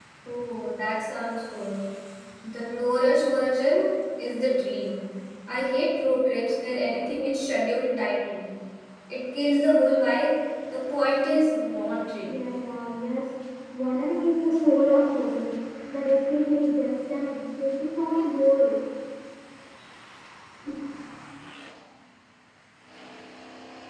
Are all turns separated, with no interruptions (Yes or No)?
Yes